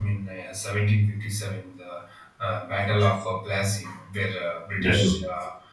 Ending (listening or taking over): listening